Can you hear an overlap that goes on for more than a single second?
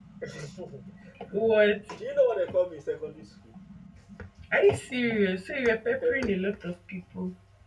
No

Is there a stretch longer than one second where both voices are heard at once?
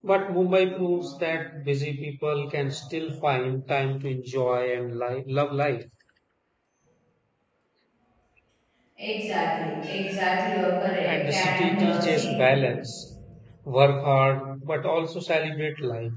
Yes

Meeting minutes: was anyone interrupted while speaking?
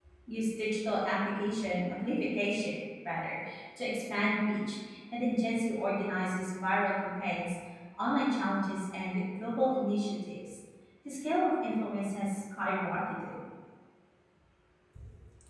No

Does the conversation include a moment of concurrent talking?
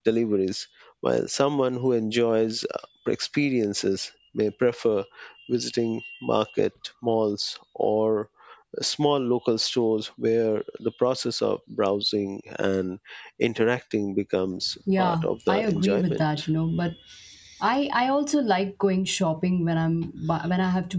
Yes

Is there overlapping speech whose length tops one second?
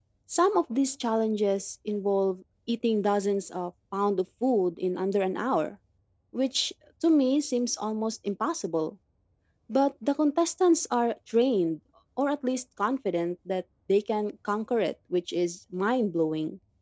No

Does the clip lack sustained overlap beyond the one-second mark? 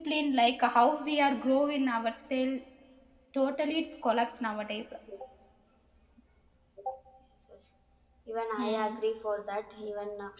Yes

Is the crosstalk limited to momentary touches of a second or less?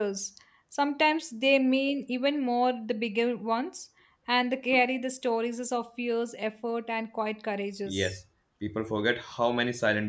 Yes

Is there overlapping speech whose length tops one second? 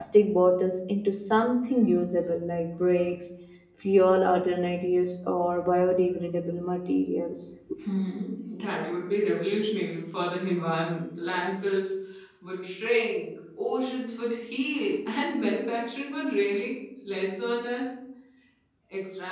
No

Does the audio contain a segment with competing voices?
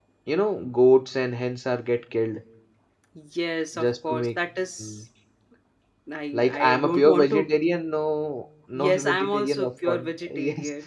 Yes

